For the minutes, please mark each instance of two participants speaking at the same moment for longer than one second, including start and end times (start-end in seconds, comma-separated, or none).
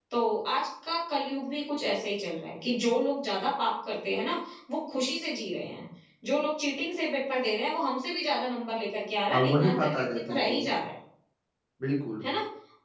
9.3-10.6